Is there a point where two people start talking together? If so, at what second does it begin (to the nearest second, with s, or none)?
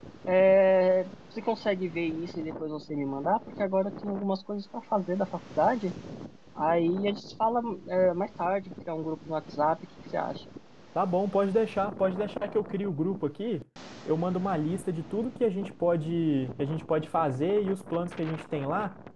none